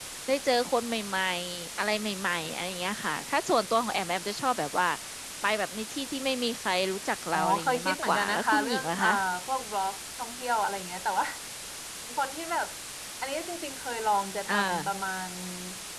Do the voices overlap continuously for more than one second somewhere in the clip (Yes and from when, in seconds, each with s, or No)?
Yes, from 7.3 s